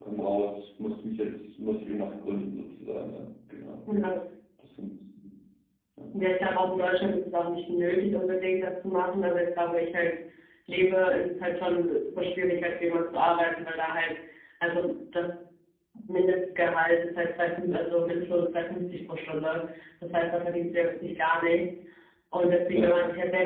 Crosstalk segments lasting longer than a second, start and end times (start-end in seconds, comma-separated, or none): none